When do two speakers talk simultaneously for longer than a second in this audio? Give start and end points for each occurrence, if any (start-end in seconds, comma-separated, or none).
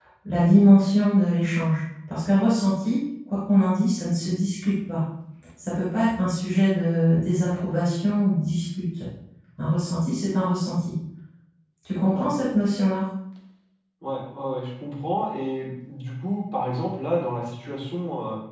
none